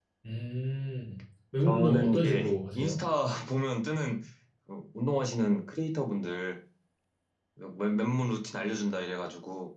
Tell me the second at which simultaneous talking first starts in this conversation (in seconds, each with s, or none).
1.6 s